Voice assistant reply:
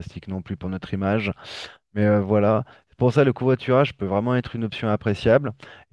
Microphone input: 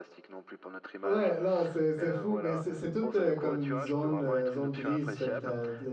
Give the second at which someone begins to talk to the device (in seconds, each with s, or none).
1.0 s